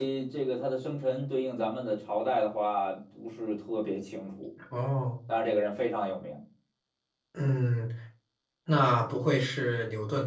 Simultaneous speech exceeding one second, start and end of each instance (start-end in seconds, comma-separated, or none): none